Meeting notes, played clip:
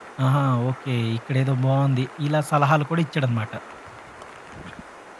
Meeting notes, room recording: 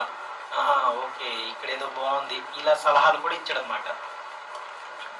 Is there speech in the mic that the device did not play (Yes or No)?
No